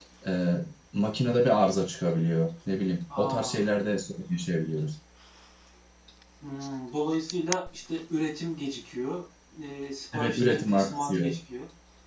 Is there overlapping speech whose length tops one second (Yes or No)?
Yes